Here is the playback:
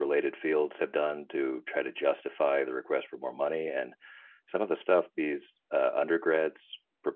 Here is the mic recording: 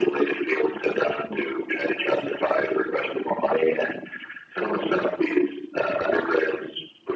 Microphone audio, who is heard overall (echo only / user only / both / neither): echo only